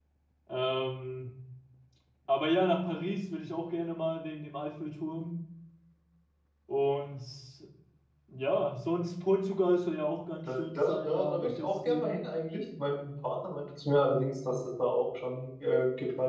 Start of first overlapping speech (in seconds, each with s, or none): 10.5 s